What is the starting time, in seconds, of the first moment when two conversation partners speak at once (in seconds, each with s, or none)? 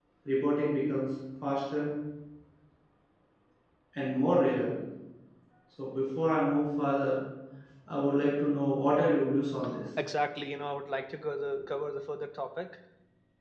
none